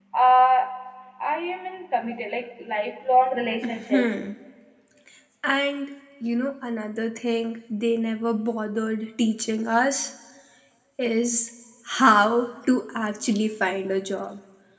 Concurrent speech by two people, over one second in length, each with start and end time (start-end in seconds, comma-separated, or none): none